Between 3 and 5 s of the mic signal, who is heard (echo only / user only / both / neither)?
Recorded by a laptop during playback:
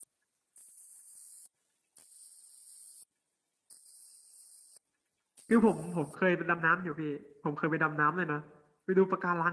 neither